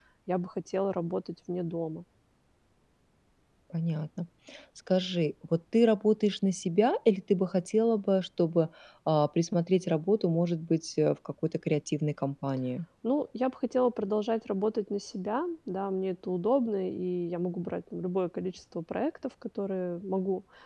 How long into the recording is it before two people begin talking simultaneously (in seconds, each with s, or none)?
none